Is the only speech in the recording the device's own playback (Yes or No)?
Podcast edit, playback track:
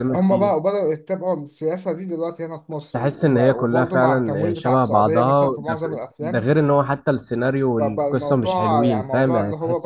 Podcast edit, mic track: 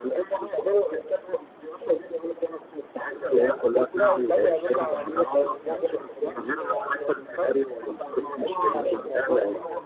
No